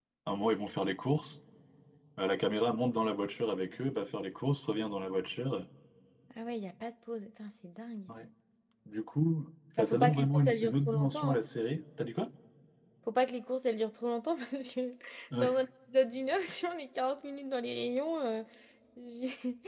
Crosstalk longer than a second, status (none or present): present